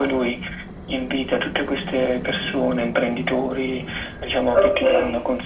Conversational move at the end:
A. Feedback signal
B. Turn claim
A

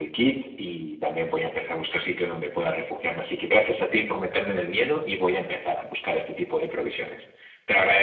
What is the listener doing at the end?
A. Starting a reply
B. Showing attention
A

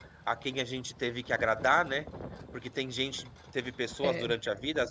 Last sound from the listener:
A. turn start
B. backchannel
B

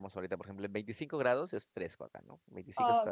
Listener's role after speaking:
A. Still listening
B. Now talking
B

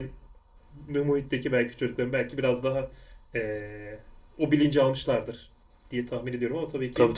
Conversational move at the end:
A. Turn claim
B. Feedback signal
A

